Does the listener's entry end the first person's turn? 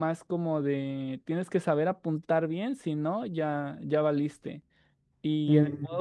No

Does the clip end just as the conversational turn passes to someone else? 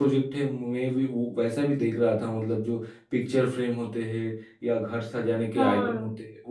No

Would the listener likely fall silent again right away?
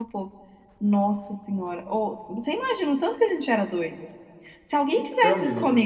Yes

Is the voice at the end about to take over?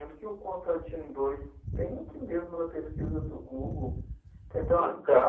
No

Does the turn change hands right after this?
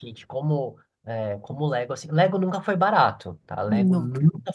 No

